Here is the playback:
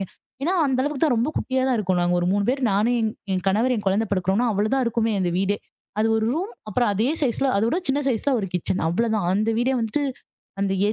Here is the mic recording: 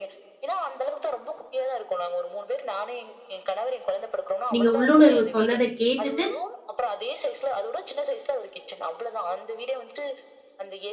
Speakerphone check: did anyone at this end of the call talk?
Yes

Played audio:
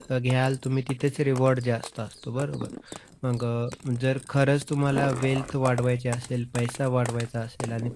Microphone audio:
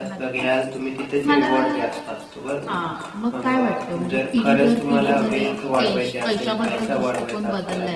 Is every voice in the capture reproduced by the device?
No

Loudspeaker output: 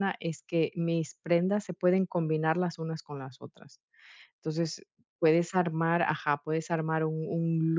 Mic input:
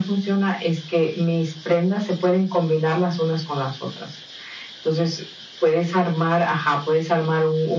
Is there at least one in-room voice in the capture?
No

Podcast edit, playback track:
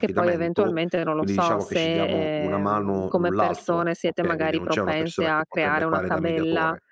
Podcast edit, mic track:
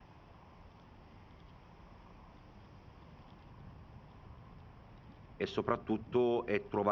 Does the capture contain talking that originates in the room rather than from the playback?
Yes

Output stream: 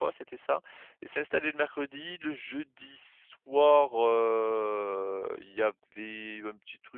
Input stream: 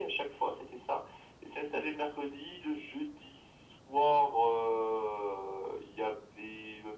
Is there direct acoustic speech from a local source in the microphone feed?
No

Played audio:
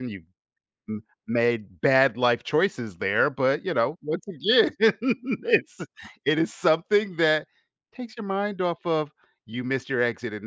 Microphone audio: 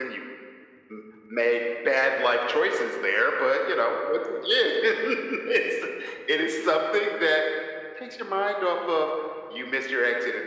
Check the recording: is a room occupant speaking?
No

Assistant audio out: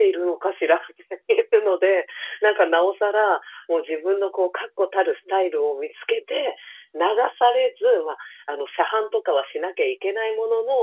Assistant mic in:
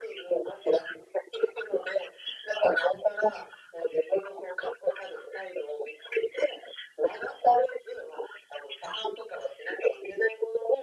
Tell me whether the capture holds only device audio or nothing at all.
Yes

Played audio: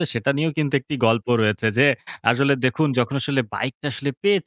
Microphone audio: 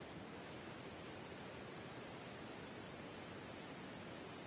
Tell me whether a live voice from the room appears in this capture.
No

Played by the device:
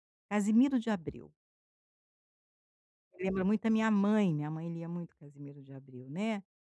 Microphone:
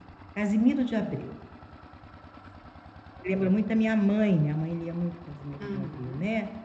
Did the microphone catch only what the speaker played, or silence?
No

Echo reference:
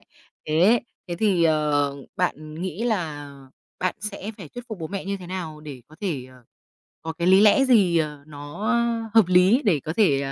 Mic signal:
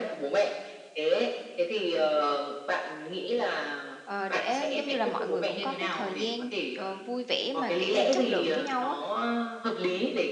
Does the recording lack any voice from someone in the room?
No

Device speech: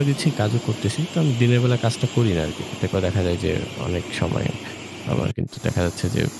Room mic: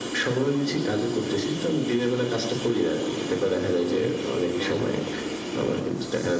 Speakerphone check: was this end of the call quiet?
No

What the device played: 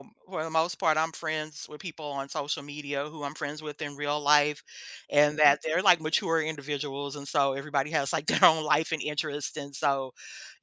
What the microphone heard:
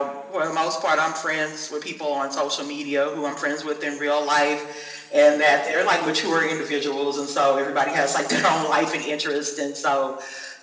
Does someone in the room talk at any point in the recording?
No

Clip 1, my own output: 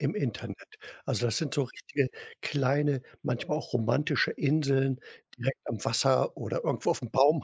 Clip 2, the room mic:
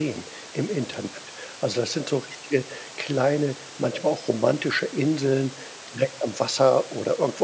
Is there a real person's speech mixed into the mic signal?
No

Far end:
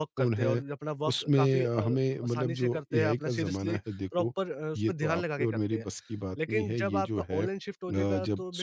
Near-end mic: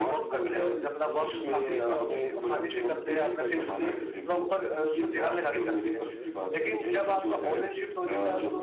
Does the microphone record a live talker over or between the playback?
Yes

